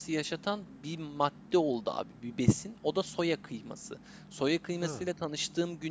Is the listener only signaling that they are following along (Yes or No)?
Yes